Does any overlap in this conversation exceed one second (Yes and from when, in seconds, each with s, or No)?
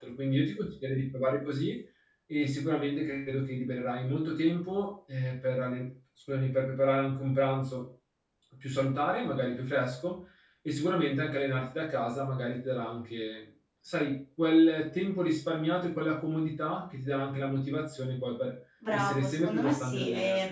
Yes, from 18.8 s